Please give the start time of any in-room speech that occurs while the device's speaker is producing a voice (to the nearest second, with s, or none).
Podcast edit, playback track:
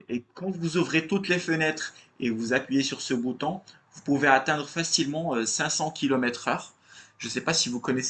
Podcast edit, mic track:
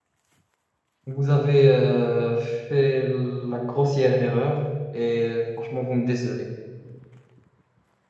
1 s